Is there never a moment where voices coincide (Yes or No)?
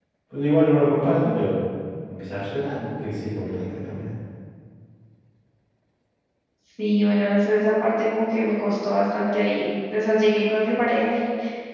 Yes